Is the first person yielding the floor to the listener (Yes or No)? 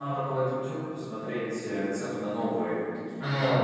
No